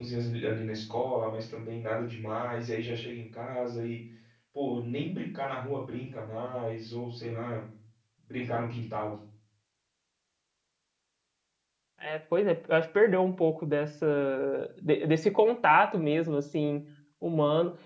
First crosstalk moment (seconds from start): none

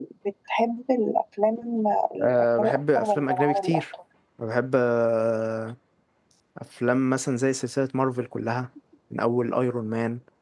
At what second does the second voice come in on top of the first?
2.2 s

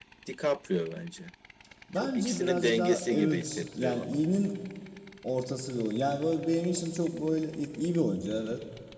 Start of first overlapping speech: 2.0 s

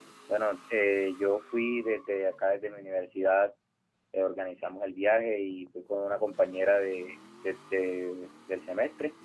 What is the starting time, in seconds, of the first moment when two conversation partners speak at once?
none

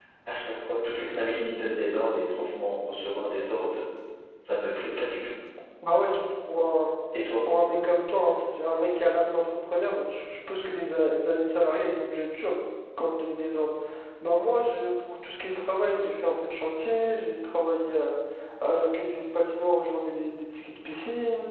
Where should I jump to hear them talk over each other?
none

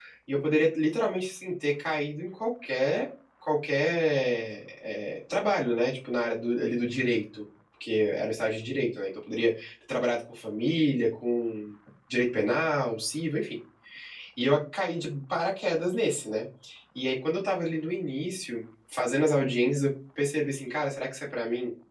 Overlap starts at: none

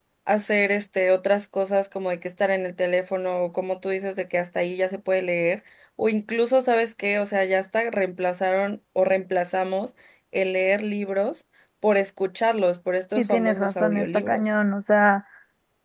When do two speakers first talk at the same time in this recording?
13.2 s

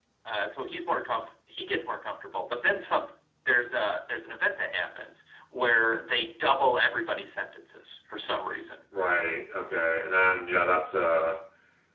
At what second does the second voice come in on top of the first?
none

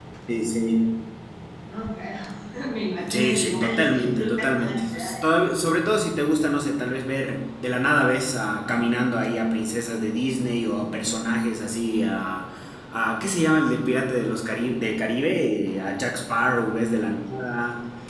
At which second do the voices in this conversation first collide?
3.1 s

